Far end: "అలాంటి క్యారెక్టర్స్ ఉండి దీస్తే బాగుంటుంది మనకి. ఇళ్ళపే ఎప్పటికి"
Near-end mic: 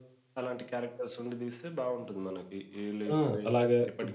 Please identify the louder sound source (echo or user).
user